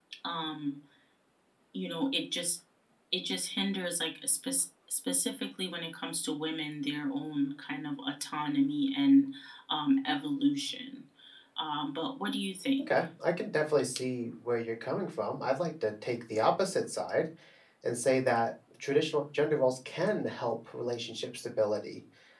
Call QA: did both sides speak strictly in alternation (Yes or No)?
Yes